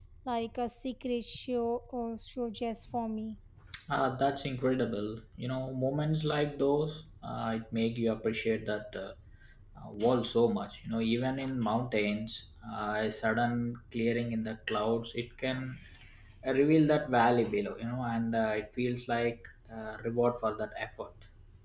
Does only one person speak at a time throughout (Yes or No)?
Yes